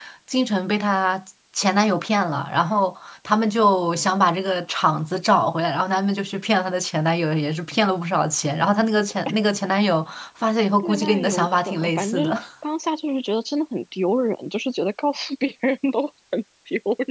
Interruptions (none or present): present